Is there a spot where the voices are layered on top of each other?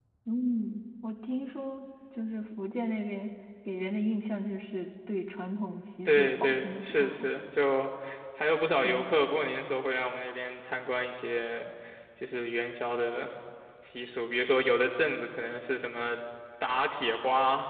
Yes, from 6.0 s

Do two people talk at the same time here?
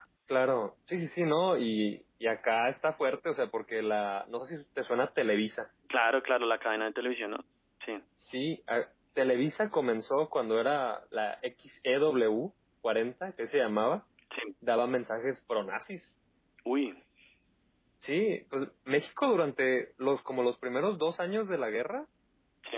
No

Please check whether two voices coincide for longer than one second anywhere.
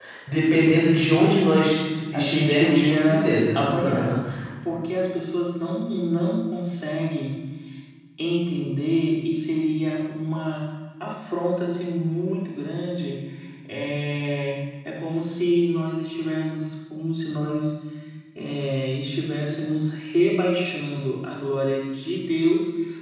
Yes, from 2.1 s

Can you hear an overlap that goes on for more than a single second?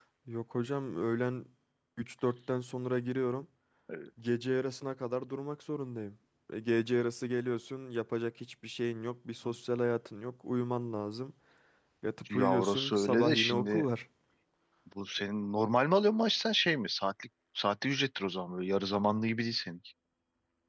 Yes, from 12.3 s

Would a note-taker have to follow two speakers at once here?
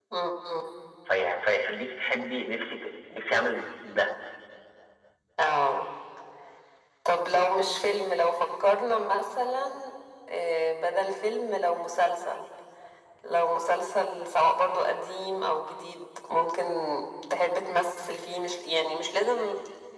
No

